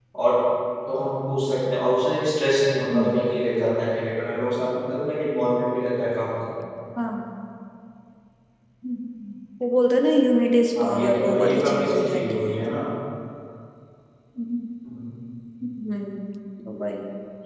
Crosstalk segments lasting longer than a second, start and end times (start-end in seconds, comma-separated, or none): 10.8-12.6